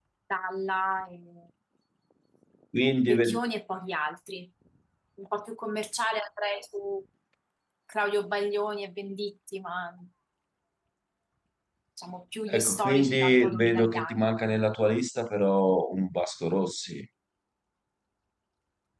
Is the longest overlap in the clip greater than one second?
Yes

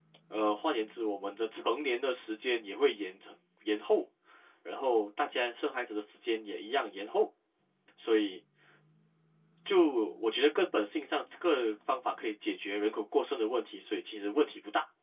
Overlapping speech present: No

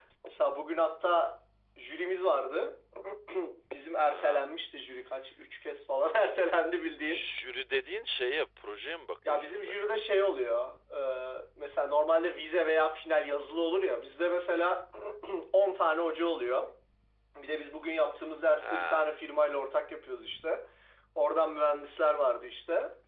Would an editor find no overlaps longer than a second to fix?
Yes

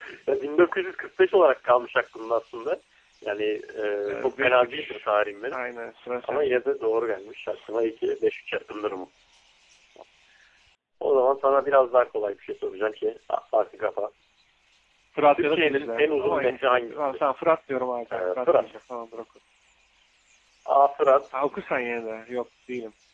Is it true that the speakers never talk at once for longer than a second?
No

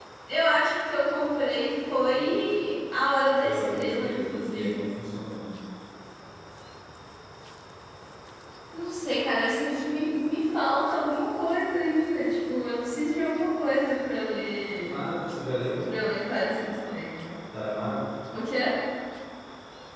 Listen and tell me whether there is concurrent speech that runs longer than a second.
Yes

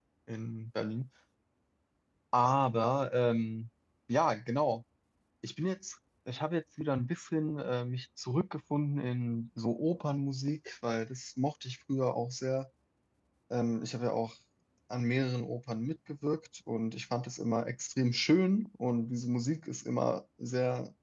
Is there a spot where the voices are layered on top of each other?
No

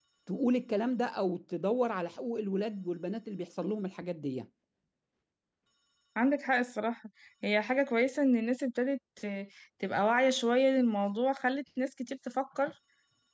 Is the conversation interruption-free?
Yes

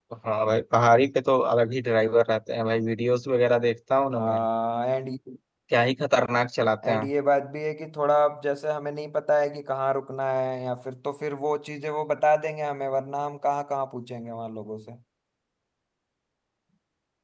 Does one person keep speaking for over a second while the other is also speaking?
No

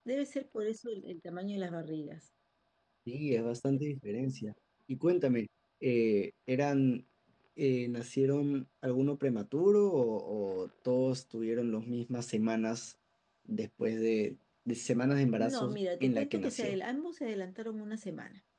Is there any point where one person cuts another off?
Yes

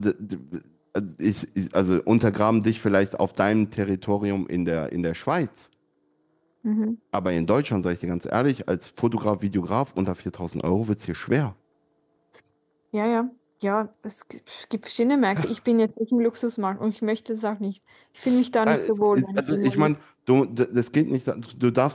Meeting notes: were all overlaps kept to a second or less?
No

